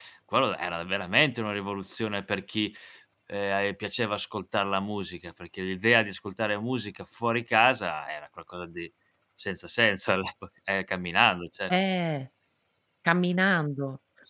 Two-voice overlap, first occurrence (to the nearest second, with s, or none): none